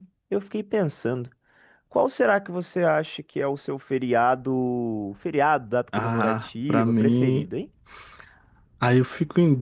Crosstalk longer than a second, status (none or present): present